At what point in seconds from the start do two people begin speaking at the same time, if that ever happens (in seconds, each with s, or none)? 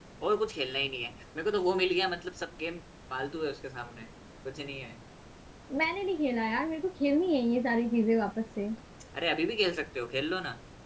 none